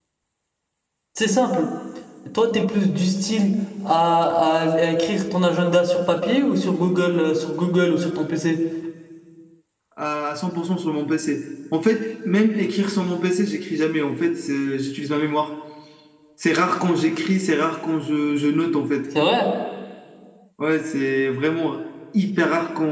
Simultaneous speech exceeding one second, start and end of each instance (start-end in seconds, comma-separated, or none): none